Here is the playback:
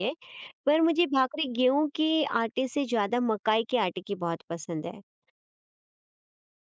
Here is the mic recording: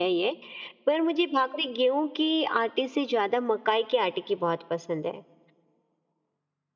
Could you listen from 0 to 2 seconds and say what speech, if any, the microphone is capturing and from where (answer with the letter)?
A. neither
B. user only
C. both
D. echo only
D